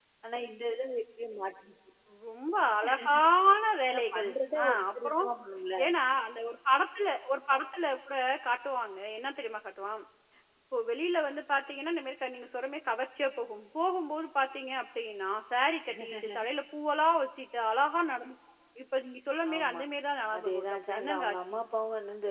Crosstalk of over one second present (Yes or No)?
Yes